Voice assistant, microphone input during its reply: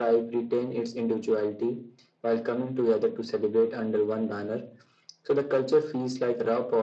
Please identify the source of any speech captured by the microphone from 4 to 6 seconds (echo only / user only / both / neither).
echo only